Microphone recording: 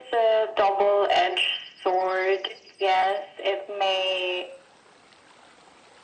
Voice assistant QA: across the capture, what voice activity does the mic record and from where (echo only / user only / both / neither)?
echo only